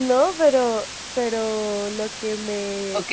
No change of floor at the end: No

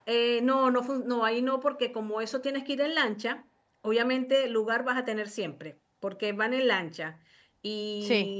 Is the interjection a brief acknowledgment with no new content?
Yes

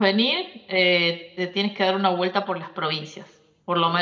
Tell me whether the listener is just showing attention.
Yes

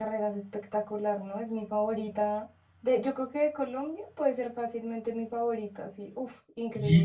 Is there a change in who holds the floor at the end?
Yes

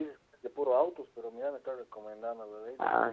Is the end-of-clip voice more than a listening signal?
Yes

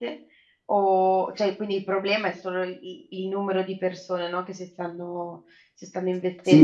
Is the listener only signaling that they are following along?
No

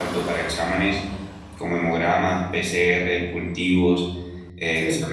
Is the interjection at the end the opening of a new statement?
No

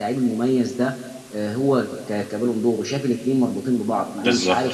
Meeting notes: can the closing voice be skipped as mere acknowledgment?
Yes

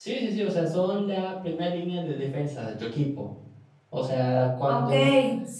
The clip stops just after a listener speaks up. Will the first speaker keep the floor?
No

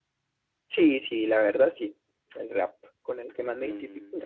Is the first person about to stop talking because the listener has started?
Yes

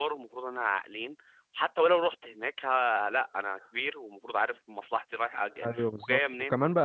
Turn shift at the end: Yes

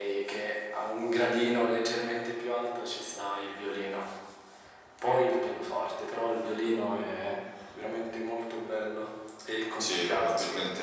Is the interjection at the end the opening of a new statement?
Yes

